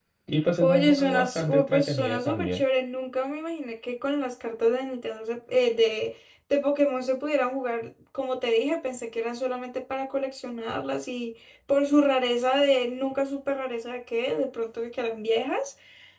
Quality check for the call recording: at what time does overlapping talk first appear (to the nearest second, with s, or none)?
1 s